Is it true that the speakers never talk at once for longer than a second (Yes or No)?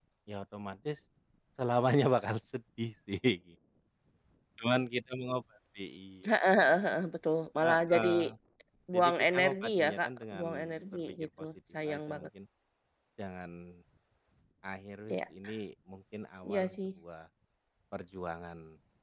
No